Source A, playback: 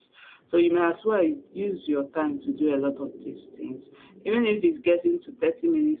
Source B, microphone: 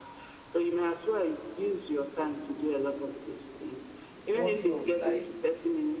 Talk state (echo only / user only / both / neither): both